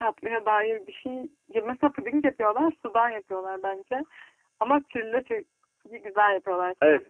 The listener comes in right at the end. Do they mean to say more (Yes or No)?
Yes